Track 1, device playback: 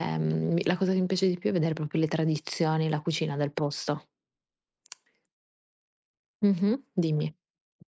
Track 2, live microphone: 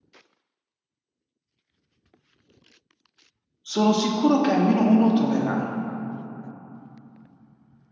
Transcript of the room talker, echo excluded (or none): Sono sicuro che almeno uno troverai.